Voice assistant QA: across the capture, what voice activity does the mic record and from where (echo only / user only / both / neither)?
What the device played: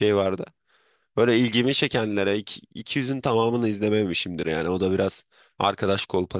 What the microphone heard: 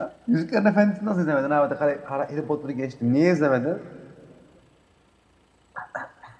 user only